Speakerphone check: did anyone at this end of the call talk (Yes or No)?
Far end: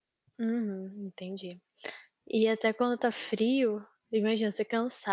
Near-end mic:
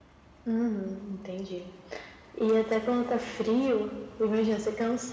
No